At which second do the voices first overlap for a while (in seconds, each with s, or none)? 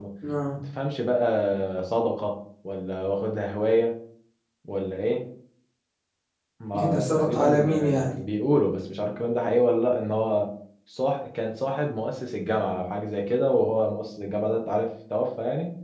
6.8 s